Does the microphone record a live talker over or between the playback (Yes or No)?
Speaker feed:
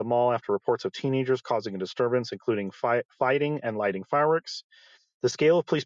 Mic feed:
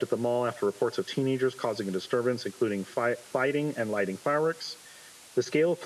No